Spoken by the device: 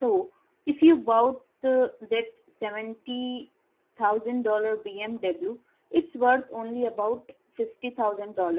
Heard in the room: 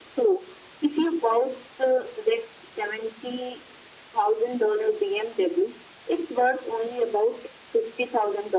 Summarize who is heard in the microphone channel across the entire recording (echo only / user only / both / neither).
echo only